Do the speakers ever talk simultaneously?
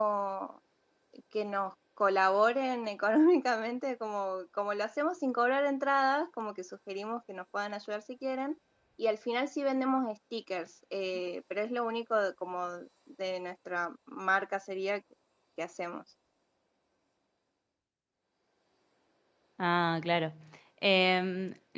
No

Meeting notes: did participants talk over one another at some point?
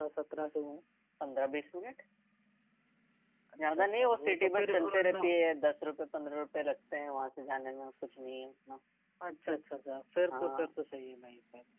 Yes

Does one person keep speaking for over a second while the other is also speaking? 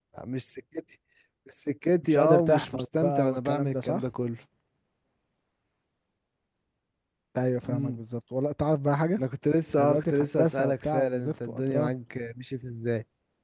Yes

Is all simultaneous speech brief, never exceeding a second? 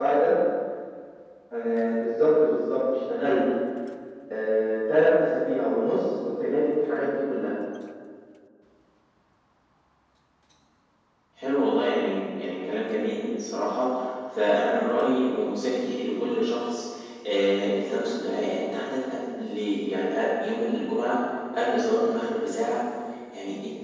Yes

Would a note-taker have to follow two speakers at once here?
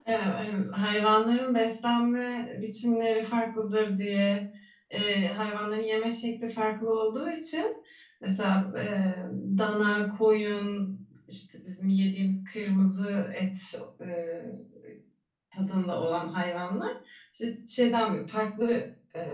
No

